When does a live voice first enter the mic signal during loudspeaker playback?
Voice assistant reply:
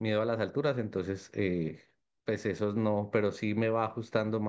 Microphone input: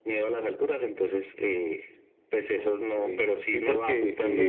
3 s

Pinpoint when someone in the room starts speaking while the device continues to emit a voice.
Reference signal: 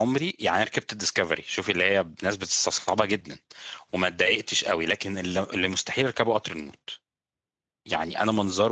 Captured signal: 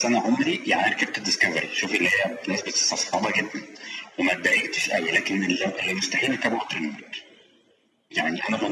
none

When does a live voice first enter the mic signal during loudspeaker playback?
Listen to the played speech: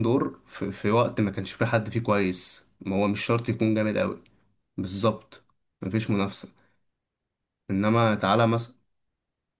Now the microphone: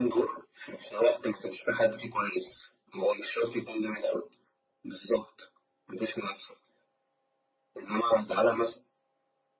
none

